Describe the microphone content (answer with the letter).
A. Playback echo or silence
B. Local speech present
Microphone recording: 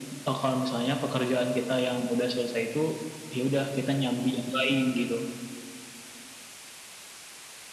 A